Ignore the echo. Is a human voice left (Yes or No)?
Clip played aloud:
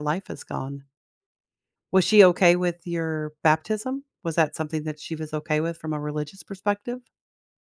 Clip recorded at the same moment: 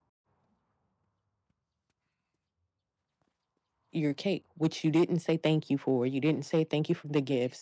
Yes